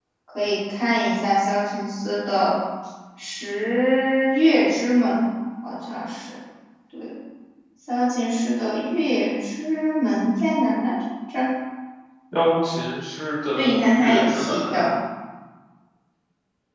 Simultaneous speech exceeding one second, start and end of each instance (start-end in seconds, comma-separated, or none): 13.5-14.8